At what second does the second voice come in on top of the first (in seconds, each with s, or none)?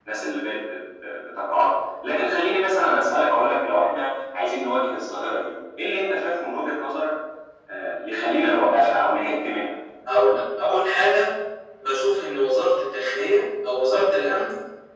none